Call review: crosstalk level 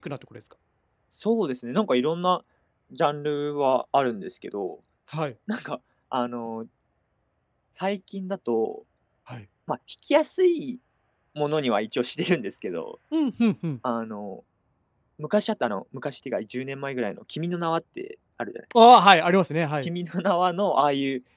none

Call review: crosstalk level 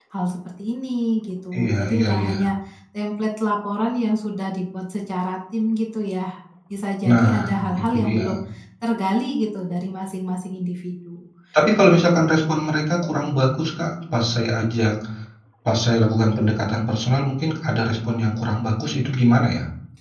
present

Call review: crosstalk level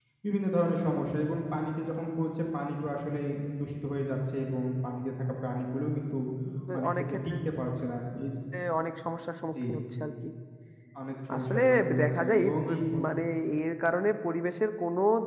present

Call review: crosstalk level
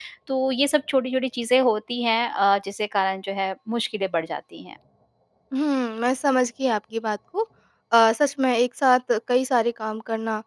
none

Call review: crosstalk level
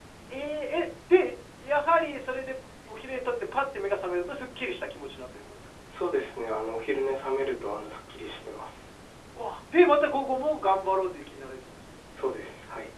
none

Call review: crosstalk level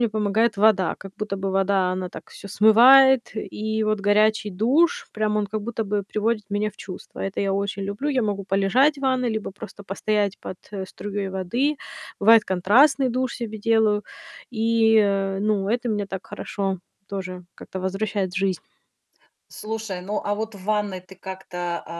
none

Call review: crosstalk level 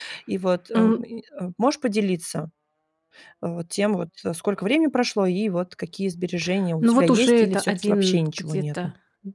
present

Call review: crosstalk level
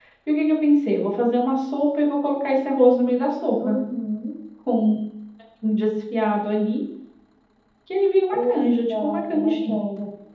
present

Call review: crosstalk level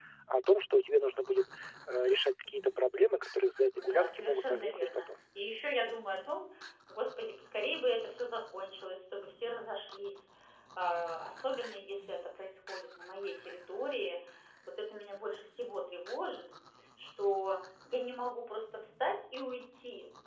present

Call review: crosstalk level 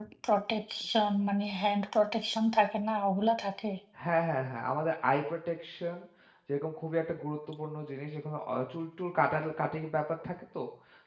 none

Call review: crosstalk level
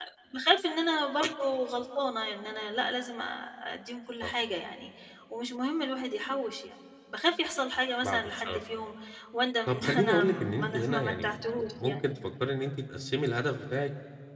present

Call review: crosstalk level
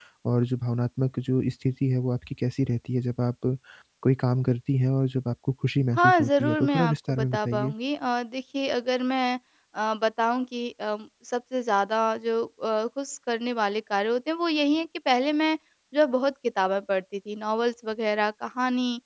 present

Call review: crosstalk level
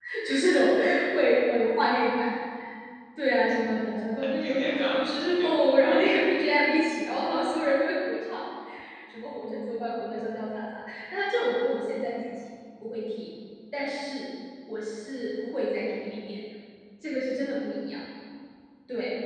present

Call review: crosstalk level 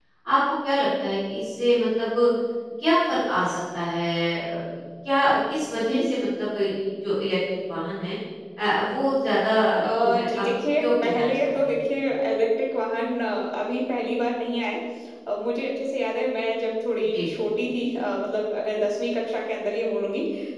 present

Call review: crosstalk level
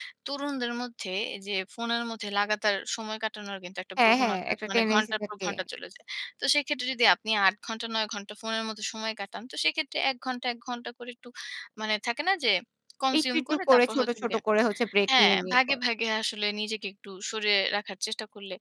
present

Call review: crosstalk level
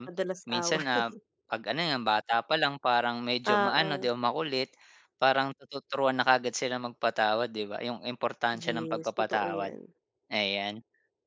present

